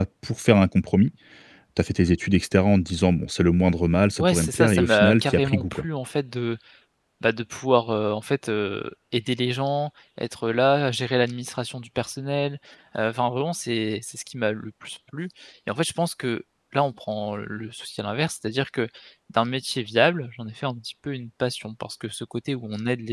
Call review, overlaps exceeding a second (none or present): present